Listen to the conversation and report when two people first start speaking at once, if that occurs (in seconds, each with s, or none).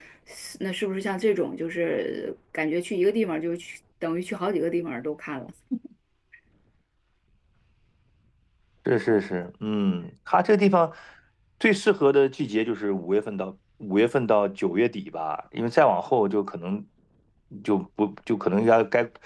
none